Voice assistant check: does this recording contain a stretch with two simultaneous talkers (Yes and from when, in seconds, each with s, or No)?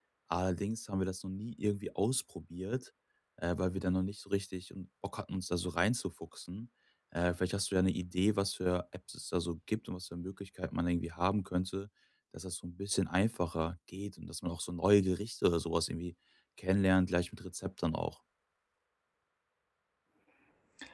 No